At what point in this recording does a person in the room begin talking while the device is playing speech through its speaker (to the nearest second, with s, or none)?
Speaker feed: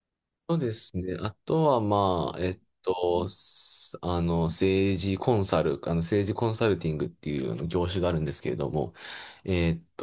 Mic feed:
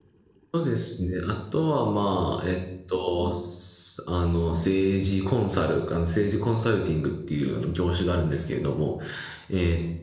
none